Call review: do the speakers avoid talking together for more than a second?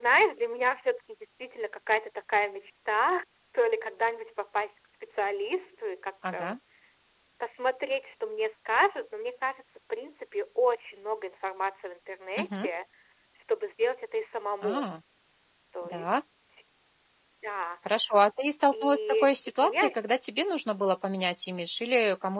No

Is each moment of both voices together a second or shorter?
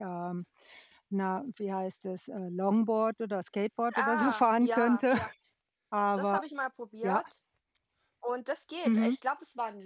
No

